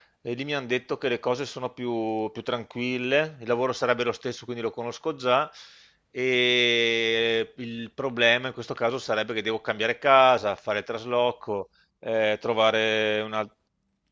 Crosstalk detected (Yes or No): No